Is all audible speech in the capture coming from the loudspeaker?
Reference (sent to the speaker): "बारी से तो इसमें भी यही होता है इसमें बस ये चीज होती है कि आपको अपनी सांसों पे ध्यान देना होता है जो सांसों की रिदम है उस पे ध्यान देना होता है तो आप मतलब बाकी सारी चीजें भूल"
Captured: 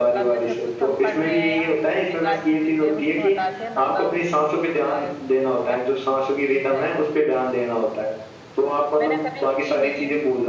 No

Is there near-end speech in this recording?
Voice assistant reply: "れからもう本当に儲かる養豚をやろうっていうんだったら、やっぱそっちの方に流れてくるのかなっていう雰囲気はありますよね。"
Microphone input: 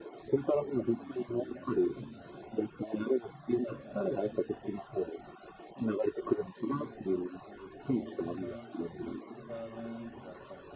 Yes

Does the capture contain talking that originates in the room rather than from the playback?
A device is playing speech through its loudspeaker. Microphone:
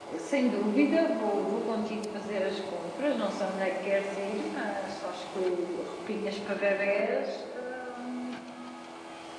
Yes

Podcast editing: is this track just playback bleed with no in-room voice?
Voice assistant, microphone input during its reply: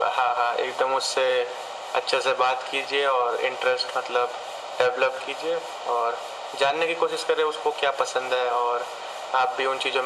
Yes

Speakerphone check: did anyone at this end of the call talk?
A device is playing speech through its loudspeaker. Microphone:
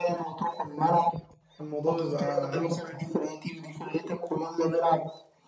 Yes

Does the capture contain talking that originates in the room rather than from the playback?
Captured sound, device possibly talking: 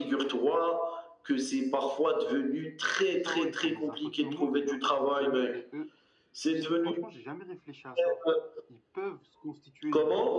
Yes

